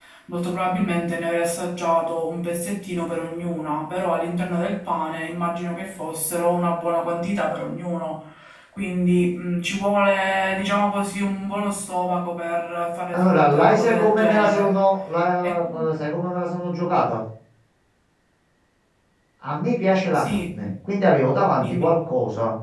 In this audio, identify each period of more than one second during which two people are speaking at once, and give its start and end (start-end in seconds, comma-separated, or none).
13.1-14.8